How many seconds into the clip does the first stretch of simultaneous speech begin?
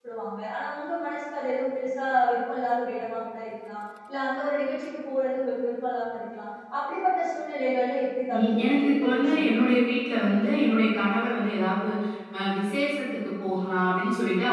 8.3 s

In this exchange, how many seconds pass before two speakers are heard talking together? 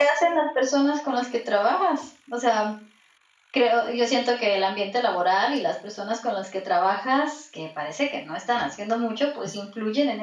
none

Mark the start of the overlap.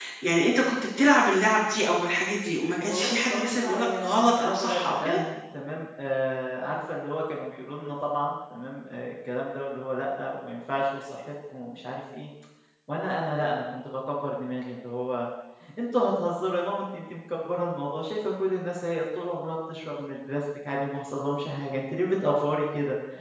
2.8 s

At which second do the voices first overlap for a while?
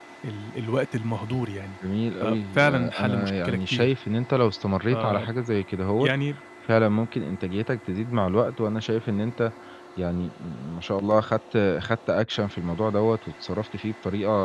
2.2 s

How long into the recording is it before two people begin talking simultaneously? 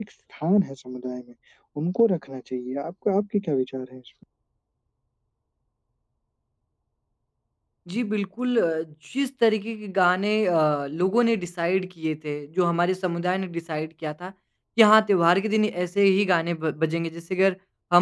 none

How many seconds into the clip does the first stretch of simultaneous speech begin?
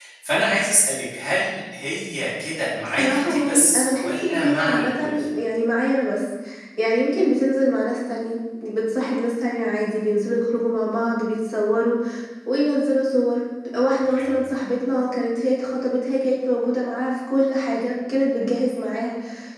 2.8 s

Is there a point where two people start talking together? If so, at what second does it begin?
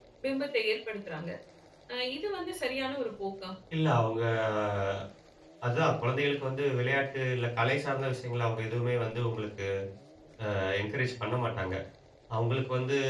none

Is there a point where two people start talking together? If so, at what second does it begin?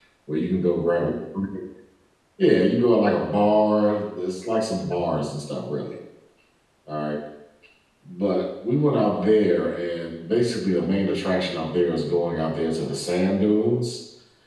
none

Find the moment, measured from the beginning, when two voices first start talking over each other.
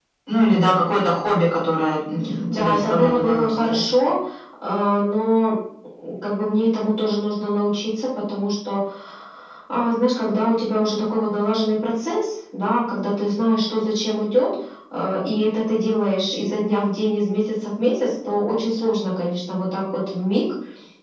2.5 s

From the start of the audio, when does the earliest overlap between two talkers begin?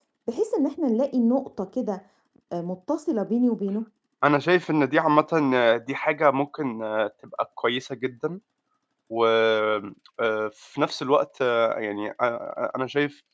none

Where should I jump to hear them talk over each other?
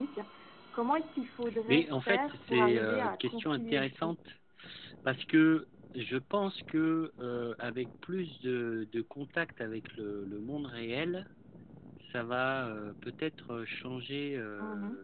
1.7 s

